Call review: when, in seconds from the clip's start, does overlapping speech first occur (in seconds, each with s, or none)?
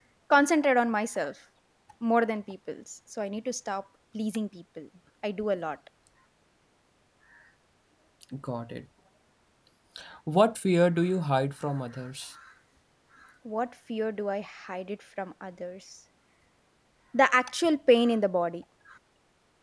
none